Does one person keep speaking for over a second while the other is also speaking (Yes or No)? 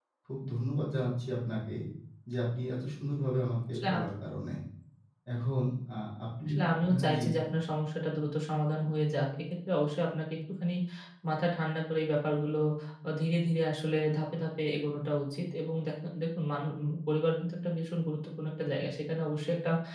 No